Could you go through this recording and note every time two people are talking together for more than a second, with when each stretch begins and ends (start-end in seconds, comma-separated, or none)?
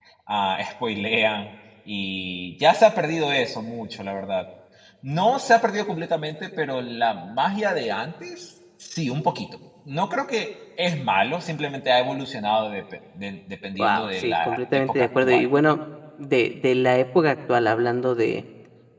13.8-15.4